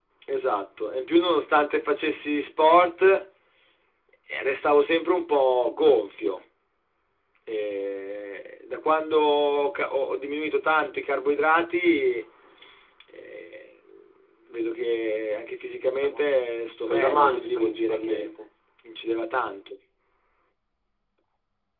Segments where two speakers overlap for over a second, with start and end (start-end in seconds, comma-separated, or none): 16.9-18.3